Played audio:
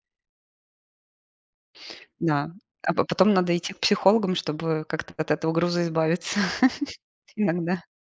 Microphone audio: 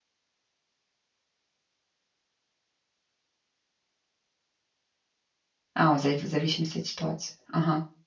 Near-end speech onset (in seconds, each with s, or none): 5.7 s